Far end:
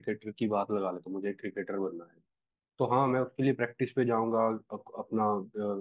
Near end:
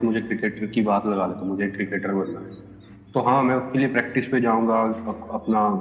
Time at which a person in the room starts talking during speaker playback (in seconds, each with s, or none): none